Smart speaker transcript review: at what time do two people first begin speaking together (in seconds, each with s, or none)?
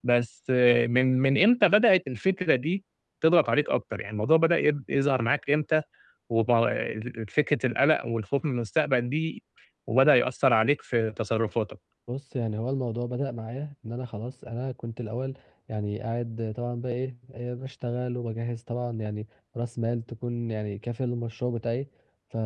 none